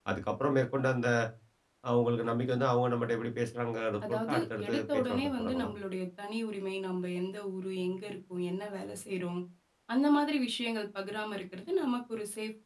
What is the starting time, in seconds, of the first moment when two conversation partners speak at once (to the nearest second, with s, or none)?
4 s